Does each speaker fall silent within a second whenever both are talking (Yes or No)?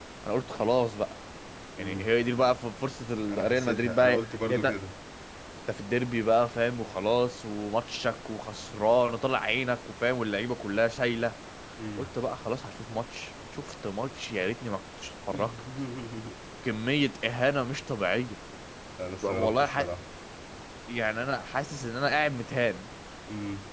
No